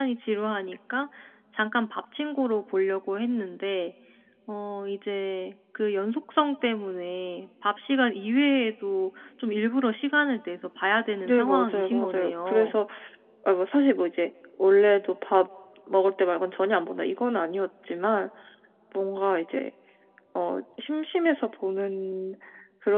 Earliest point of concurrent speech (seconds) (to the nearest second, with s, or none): 11 s